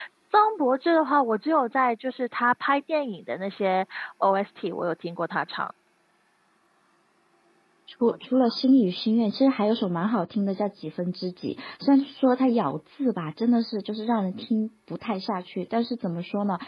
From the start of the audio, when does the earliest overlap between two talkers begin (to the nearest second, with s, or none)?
none